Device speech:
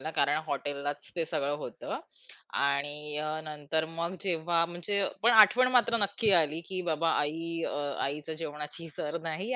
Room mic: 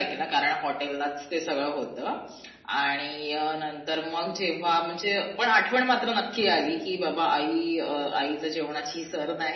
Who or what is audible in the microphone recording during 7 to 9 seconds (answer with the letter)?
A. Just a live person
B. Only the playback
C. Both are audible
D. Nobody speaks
B